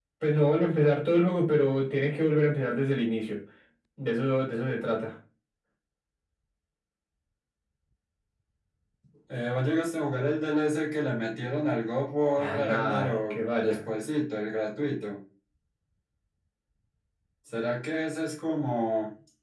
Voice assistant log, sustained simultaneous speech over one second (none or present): present